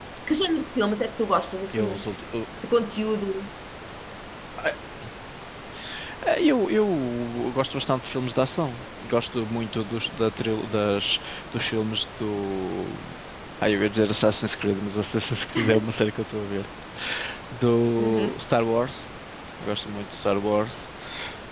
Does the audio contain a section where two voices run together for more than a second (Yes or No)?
No